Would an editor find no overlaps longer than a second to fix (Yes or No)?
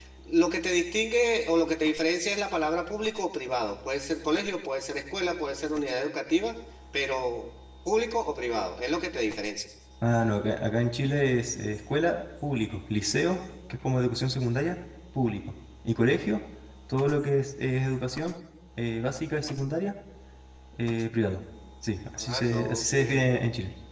No